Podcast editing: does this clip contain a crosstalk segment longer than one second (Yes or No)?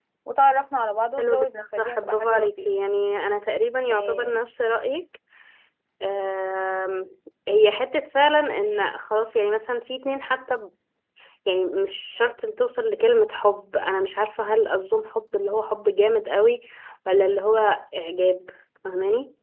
Yes